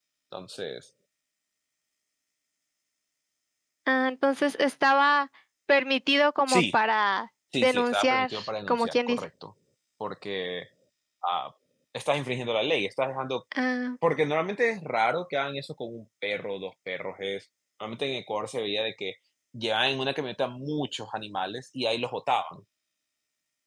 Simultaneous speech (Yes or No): Yes